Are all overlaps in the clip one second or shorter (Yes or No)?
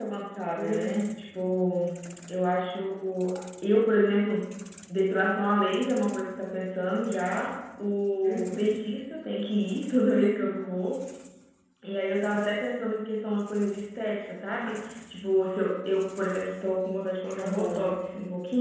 Yes